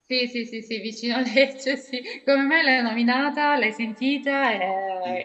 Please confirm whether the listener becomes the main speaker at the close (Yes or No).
Yes